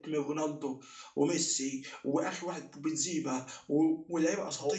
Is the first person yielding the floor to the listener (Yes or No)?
No